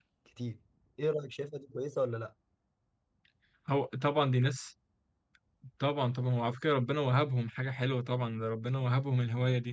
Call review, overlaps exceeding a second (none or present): none